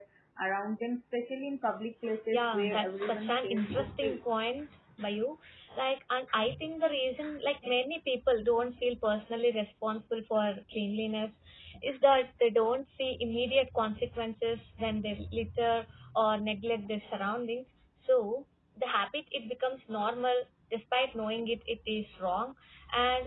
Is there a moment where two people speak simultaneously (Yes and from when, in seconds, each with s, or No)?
Yes, from 2.3 s